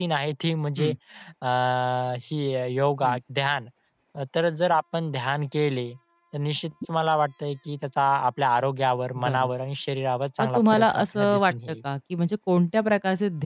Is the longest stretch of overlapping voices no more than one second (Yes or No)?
No